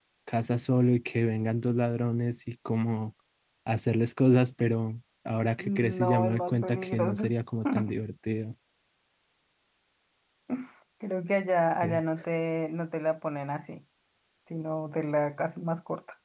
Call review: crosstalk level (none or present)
present